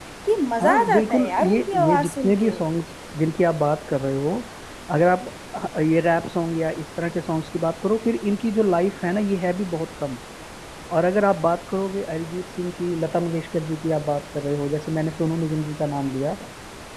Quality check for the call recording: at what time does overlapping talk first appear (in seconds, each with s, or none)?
0.6 s